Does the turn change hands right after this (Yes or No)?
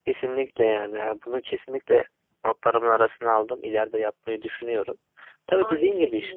No